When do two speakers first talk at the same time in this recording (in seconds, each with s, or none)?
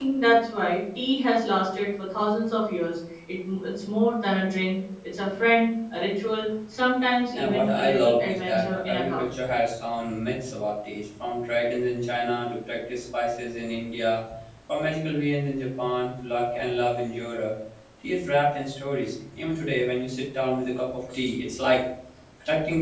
7.3 s